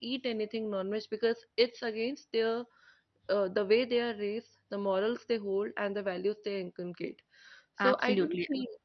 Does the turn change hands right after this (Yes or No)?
Yes